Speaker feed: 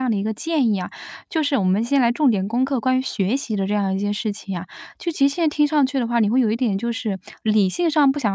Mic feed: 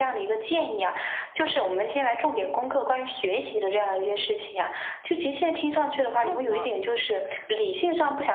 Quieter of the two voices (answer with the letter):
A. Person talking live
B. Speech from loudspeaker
A